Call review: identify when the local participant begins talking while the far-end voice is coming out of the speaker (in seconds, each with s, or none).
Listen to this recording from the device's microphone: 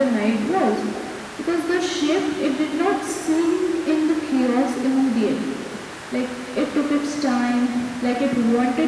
none